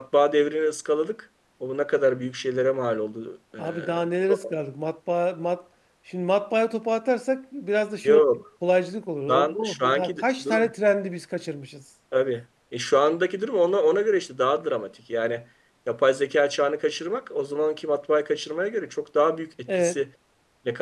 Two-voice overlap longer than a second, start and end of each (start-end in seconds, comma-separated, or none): 9.3-10.7